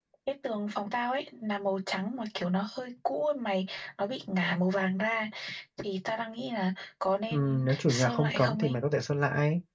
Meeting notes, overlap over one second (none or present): present